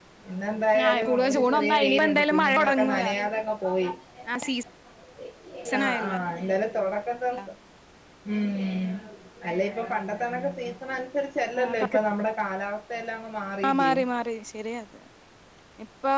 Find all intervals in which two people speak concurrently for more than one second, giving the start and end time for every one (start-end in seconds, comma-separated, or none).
0.9-3.0